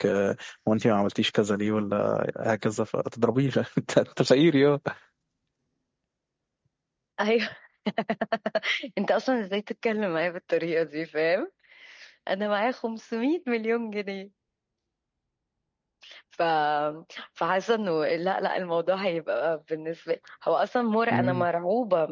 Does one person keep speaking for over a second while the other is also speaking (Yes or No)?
No